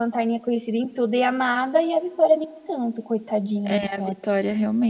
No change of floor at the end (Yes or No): No